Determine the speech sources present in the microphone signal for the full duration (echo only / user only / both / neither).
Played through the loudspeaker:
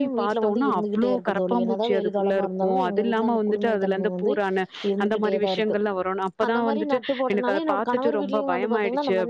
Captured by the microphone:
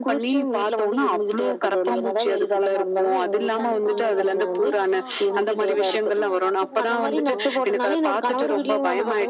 both